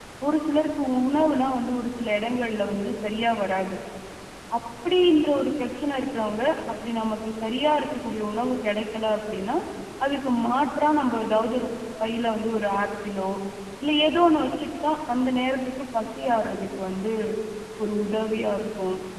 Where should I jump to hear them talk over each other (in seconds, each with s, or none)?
none